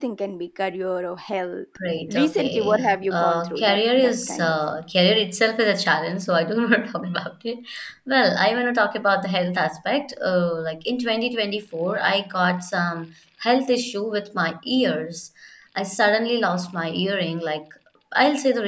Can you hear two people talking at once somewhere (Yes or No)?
Yes